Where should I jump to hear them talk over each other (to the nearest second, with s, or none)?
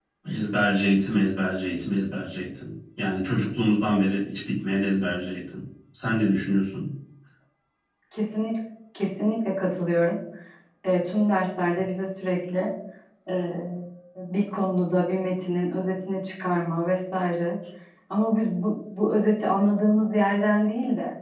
none